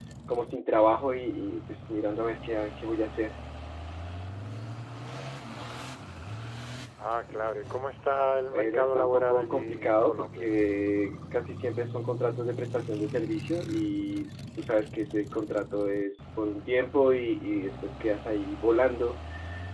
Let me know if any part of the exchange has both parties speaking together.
Yes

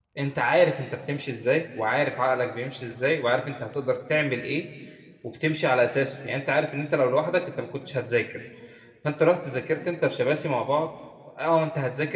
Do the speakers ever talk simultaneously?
No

